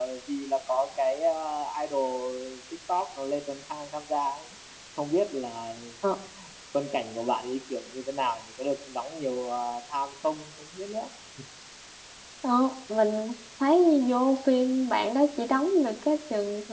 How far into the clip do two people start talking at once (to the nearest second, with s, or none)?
none